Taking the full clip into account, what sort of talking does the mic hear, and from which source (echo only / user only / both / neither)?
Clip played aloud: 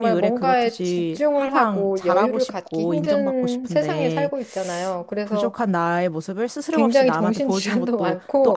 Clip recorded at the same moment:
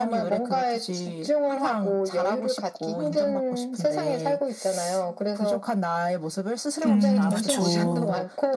both